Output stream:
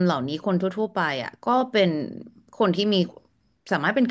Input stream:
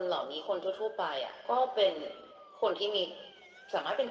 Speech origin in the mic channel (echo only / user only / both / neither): echo only